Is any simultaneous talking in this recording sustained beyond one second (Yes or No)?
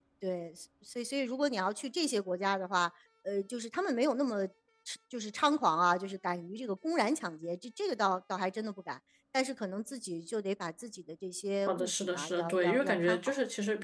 Yes